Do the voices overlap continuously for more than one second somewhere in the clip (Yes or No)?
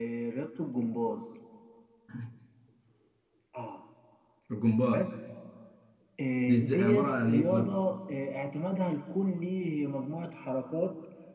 Yes